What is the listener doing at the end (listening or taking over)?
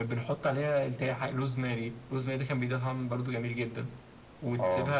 listening